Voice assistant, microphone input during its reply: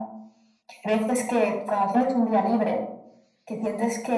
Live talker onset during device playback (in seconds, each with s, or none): none